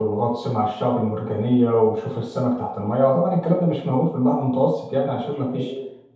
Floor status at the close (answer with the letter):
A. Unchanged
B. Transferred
A